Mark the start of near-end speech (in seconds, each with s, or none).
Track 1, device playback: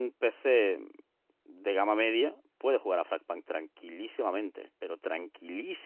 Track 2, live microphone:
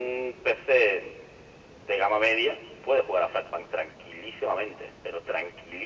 none